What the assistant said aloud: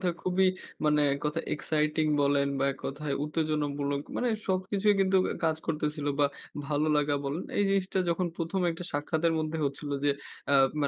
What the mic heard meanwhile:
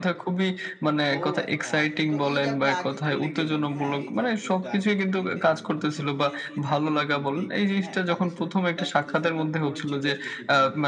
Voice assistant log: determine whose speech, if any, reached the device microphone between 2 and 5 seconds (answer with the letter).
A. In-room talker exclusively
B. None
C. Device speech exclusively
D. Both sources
D